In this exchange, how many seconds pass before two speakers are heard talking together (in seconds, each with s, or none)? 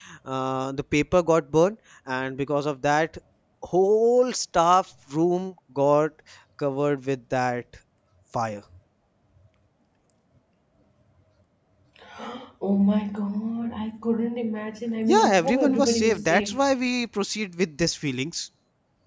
15.0 s